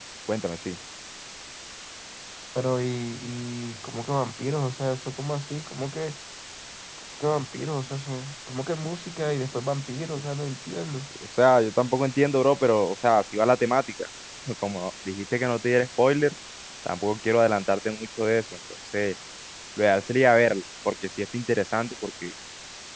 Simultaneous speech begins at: none

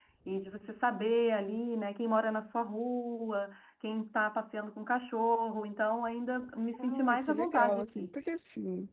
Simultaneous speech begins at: 7 s

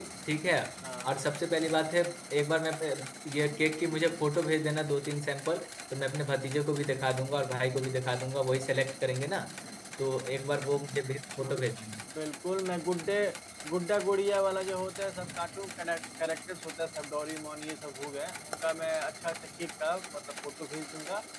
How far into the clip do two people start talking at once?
none

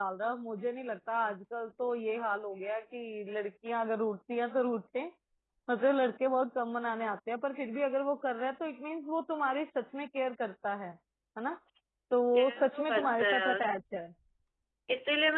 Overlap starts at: 12 s

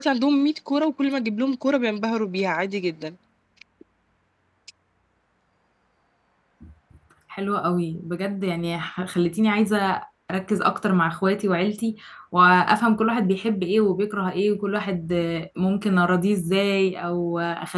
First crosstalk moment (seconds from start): none

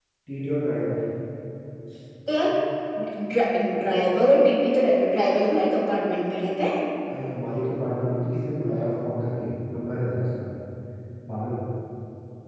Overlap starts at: none

